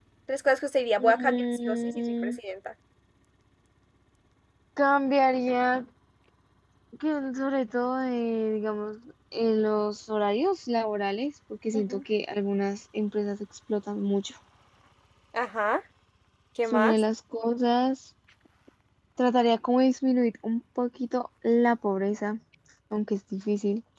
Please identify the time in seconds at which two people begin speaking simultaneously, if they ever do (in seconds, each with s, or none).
1.0 s